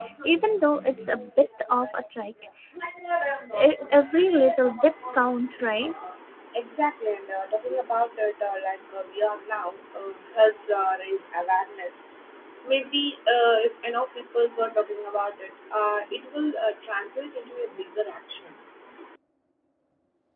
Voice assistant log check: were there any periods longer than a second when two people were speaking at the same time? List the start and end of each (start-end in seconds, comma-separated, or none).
none